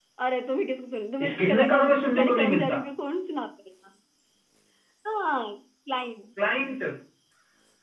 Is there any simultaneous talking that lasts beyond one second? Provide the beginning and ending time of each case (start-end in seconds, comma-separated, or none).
1.2-2.8